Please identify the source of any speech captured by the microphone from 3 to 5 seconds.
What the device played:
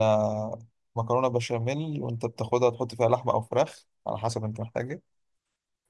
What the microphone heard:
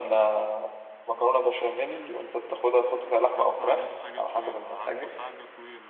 both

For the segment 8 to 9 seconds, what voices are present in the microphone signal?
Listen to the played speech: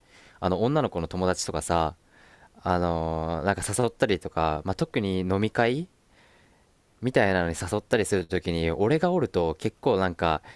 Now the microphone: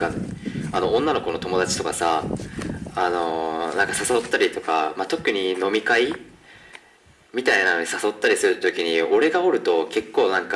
echo only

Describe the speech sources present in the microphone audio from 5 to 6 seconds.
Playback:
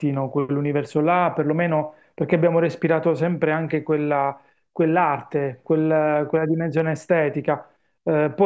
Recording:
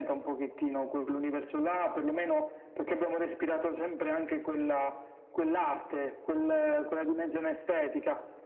echo only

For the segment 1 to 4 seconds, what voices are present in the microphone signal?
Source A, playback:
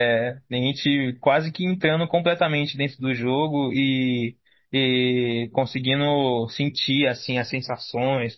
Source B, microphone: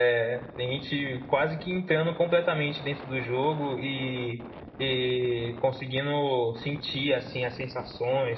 echo only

